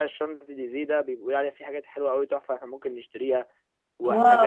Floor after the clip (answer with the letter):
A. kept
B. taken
A